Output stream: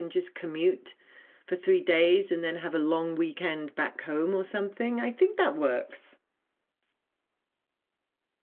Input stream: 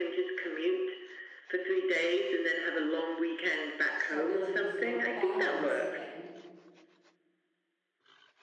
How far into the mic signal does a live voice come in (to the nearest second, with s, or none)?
4 s